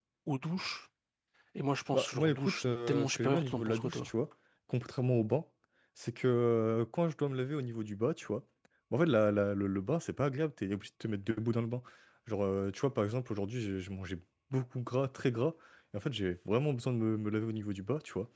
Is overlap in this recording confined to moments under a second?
No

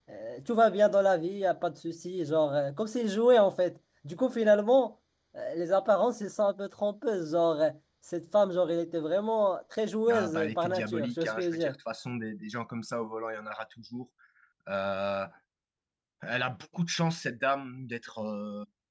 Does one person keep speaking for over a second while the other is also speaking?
Yes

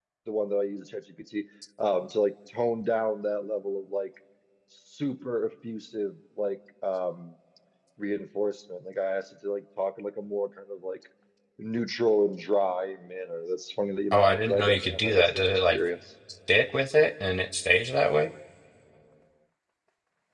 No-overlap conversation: No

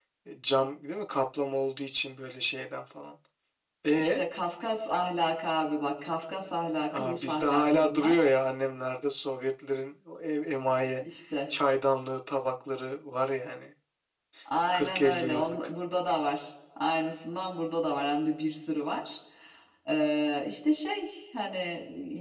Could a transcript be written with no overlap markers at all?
No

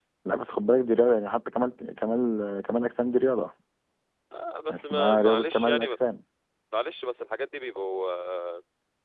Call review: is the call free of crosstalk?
No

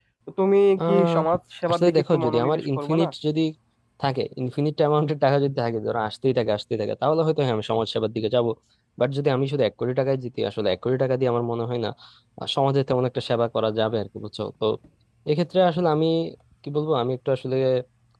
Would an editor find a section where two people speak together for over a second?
Yes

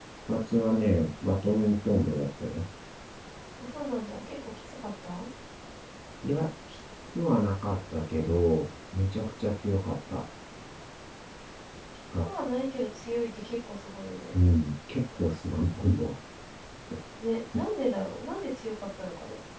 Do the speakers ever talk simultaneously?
No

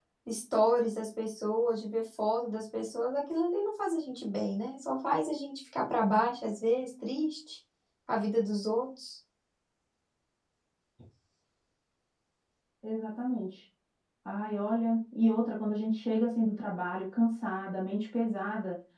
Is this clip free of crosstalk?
Yes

